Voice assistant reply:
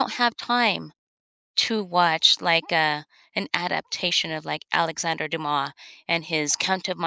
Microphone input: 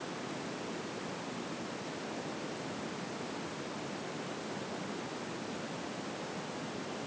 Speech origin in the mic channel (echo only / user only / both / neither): neither